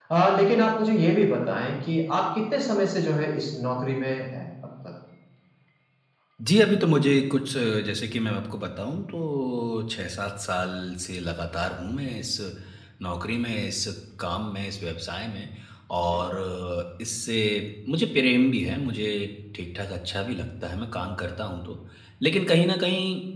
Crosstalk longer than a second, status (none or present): none